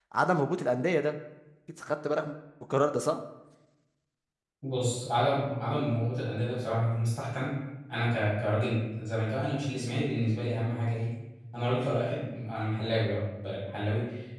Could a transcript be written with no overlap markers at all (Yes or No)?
Yes